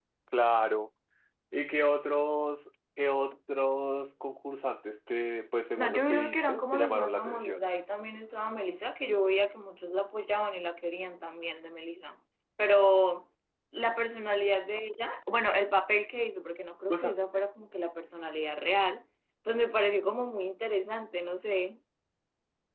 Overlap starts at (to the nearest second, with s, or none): 6 s